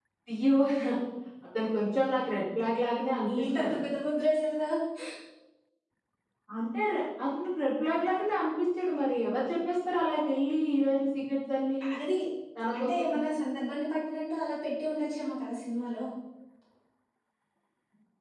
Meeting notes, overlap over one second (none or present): none